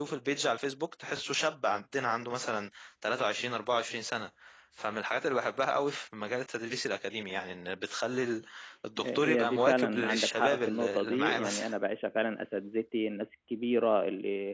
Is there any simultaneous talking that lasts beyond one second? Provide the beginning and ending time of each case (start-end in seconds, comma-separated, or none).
9.0-11.7